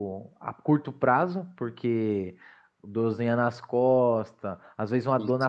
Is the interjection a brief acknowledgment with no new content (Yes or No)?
Yes